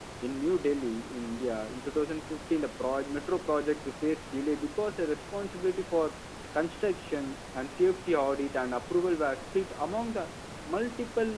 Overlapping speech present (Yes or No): No